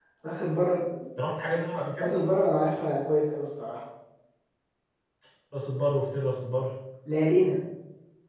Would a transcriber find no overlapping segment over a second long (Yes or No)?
Yes